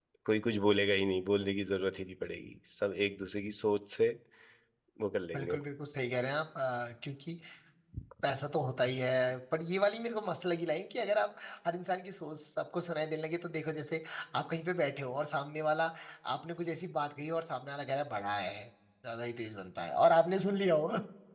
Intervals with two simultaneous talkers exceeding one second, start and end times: none

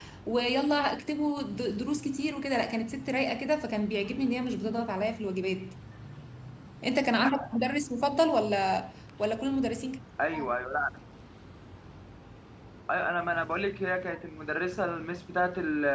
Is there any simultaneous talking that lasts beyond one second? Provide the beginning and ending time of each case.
none

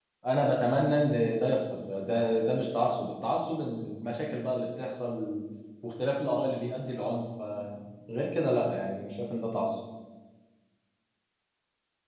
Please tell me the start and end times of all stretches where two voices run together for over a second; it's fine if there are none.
none

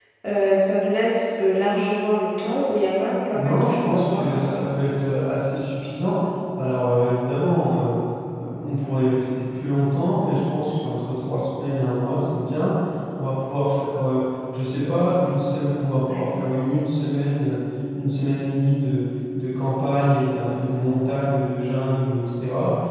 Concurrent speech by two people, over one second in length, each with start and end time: 3.3-4.6

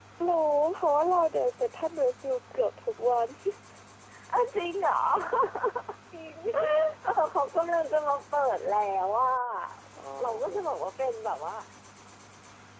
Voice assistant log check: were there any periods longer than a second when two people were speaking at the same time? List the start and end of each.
none

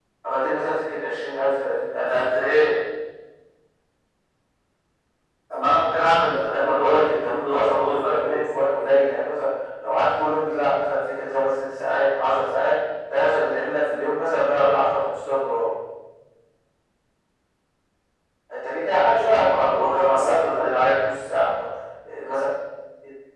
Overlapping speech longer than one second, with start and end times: 6.3-8.4, 19.1-20.9

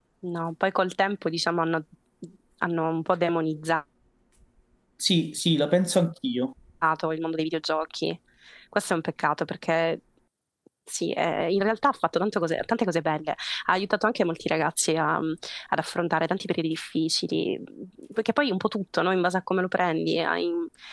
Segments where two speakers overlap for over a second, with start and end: none

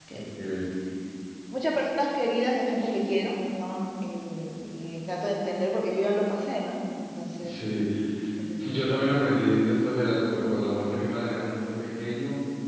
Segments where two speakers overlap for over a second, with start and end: none

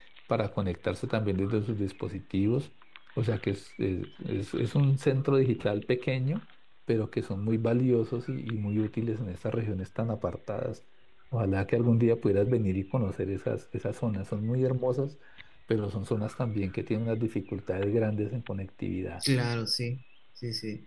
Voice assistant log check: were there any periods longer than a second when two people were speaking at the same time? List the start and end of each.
none

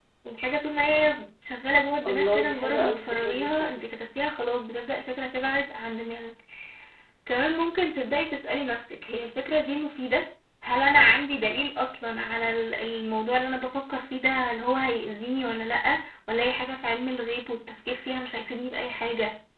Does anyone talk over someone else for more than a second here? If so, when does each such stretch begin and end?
2.0-3.8

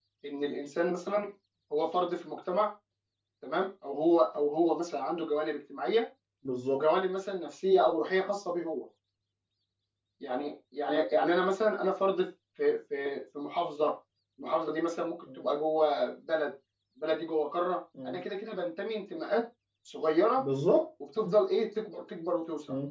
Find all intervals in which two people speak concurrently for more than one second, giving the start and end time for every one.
none

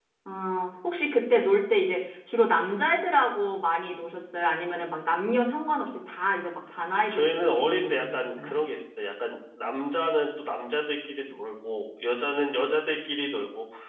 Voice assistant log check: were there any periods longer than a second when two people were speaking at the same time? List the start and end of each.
6.9-8.6

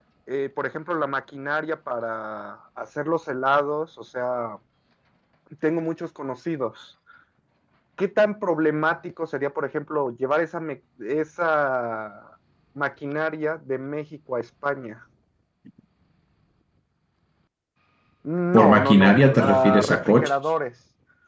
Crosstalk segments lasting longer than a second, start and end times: 18.5-20.3

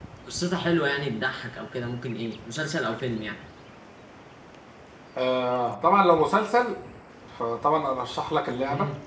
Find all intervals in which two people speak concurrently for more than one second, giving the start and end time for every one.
none

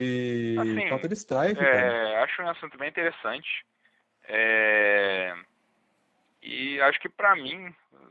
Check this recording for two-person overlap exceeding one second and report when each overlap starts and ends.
none

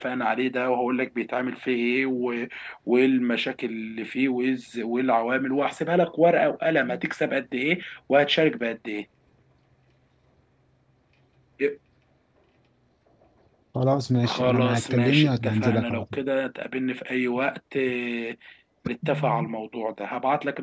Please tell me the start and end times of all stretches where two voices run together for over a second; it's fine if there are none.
14.2-16.1

